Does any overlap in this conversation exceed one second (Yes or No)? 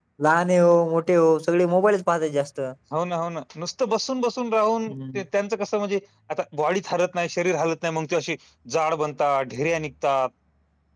No